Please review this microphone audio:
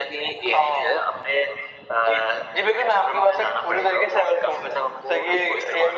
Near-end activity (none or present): none